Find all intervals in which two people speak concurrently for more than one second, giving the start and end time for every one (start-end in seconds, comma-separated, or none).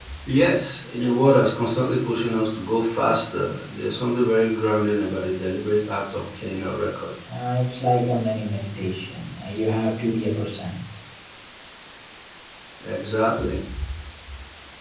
none